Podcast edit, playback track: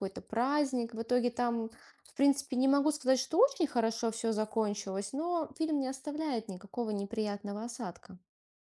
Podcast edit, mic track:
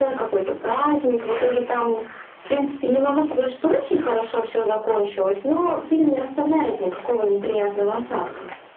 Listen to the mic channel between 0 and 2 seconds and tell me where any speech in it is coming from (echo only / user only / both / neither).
echo only